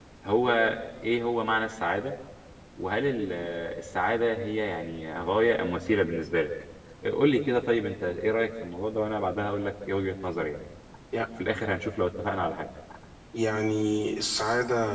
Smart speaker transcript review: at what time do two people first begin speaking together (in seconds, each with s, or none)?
none